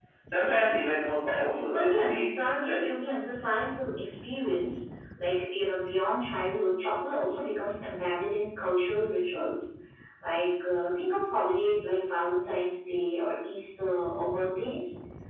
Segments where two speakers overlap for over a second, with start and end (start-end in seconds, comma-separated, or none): 1.7-2.9